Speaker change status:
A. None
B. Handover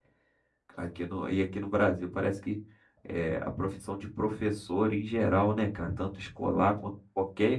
A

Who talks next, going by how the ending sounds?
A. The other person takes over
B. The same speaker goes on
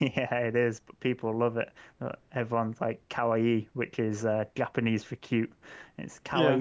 B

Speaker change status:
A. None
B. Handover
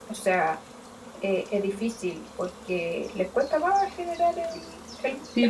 B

